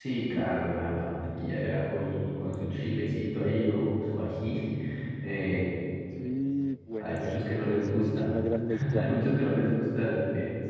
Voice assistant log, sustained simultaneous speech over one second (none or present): present